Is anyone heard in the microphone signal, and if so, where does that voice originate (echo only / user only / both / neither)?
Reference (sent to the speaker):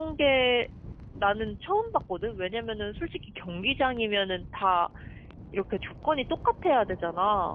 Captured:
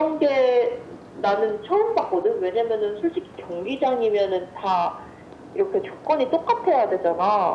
echo only